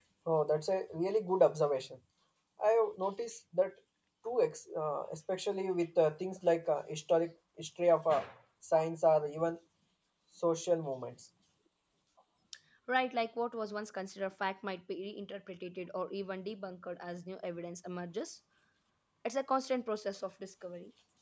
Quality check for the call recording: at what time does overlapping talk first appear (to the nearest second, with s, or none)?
none